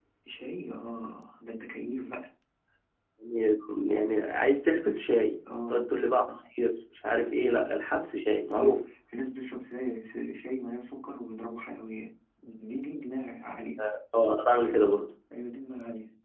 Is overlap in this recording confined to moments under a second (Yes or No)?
Yes